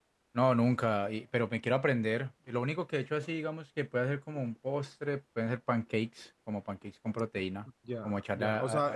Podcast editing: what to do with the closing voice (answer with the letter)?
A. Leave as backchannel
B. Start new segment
B